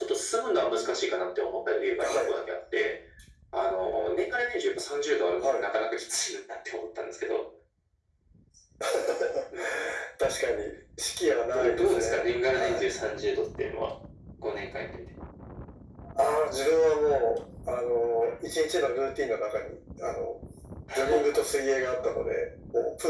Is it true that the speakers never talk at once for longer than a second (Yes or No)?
No